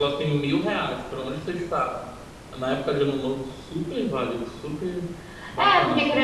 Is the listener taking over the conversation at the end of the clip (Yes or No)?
Yes